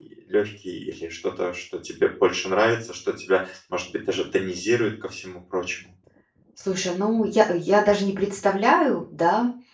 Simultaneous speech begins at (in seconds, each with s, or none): none